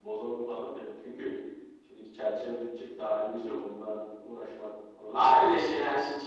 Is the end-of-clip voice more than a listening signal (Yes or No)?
Yes